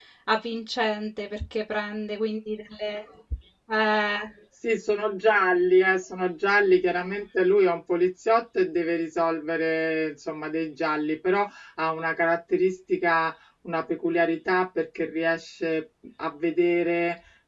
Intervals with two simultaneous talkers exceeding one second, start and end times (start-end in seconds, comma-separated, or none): none